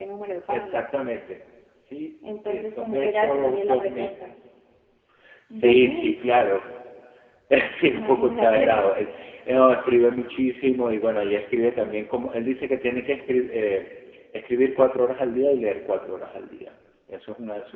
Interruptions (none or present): present